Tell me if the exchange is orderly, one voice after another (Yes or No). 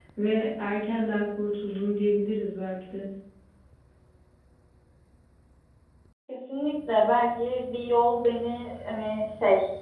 Yes